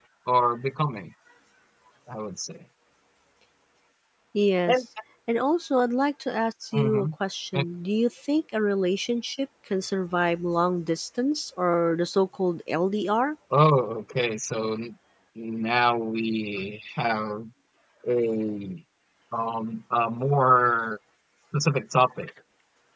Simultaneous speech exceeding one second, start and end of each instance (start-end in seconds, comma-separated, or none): none